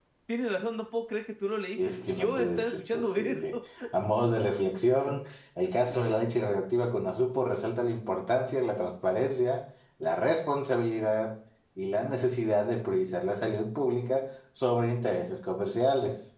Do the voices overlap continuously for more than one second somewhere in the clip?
Yes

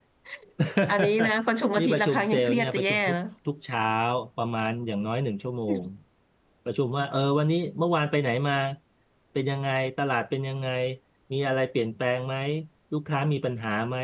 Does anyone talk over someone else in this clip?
Yes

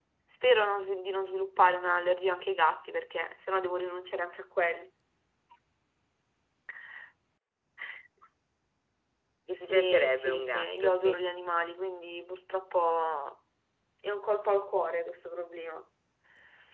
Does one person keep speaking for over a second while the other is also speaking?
Yes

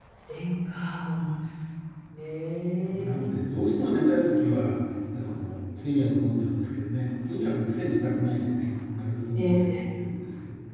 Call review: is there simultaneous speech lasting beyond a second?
No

